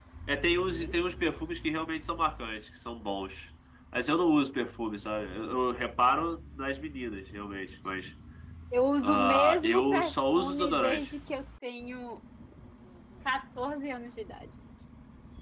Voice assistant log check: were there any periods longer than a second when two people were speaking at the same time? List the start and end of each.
9.0-11.1

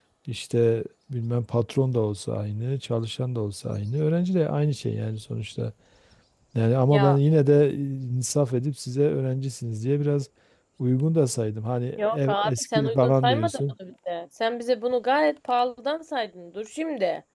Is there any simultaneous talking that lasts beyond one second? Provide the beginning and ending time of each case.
12.0-13.6

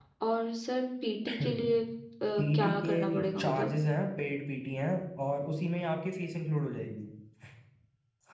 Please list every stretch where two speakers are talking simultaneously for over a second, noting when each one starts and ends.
2.4-3.7

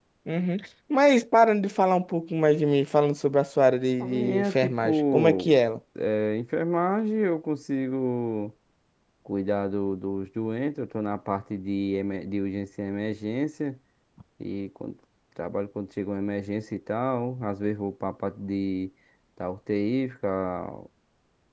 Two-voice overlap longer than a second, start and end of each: 4.0-5.6

